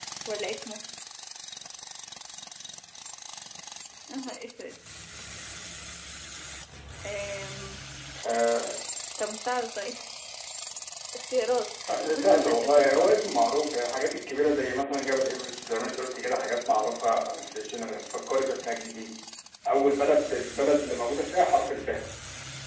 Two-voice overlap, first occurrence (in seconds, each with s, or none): 11.9 s